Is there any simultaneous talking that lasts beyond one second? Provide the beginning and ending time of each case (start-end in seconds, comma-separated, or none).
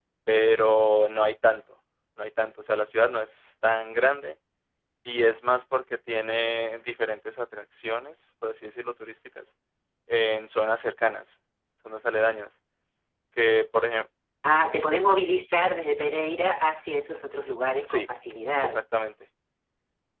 none